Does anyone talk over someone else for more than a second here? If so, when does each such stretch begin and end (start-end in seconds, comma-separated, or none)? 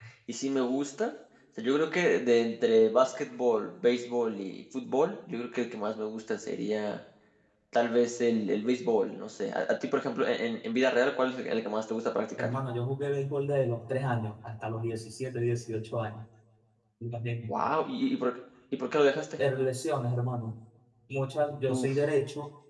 none